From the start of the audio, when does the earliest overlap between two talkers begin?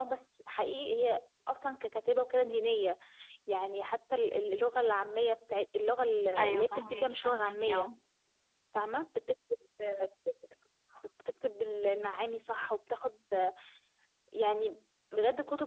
6.4 s

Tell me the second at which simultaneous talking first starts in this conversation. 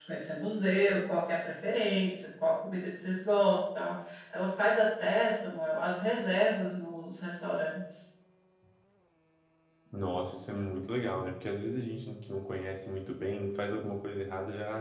none

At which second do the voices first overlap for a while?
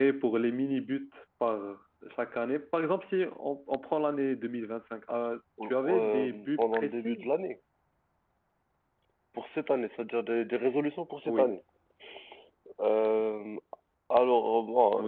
5.6 s

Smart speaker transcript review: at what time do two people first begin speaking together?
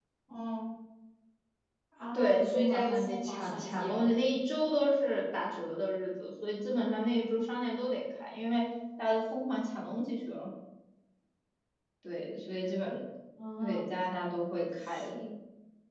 2.1 s

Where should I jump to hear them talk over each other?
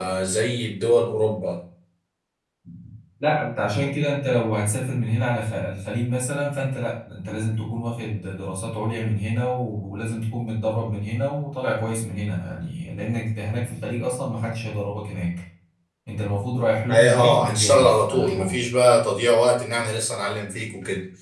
16.9 s

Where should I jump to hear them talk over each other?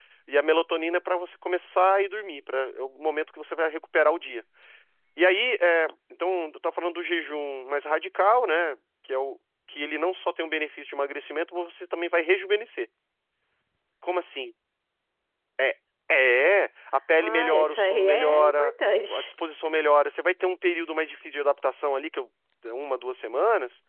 17.2 s

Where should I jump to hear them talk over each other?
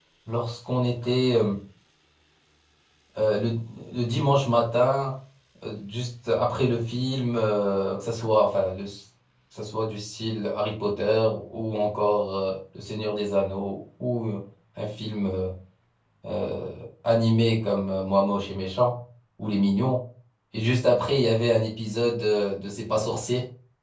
none

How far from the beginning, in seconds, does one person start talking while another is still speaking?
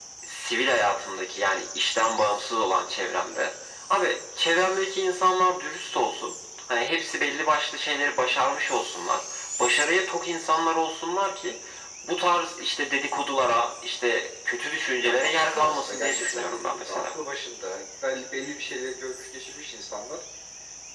15.0 s

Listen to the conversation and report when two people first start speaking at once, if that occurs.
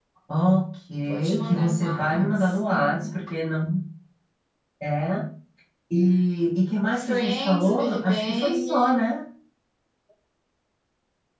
1.0 s

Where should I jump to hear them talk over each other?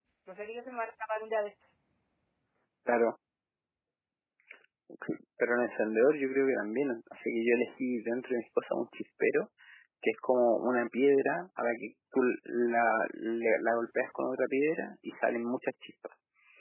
none

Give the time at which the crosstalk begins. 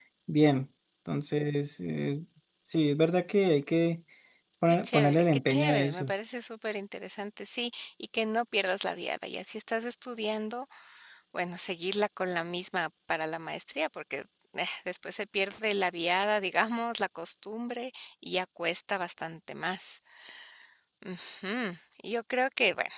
4.7 s

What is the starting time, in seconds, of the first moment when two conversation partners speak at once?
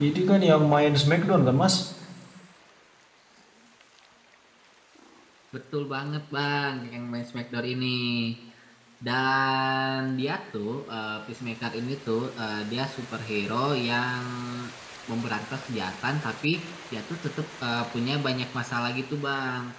none

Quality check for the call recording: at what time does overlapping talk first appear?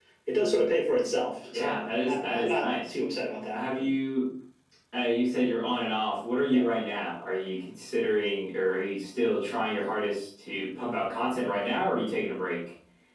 1.5 s

